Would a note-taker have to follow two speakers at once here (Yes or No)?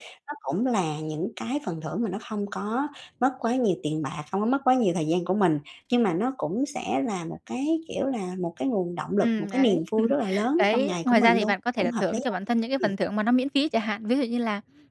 Yes